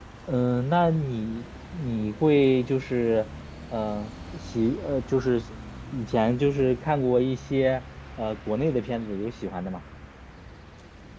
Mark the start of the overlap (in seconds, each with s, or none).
none